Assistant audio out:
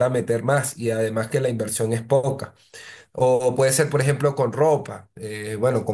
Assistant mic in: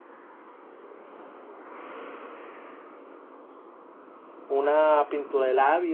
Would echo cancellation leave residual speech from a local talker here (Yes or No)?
Yes